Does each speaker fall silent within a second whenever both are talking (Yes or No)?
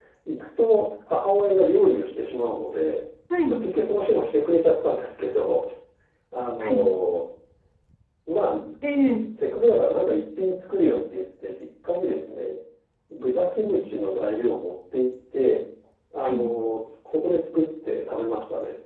Yes